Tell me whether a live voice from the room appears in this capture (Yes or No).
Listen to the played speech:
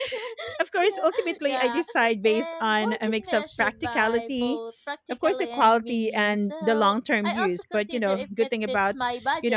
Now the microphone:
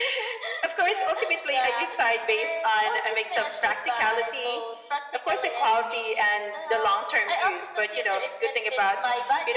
No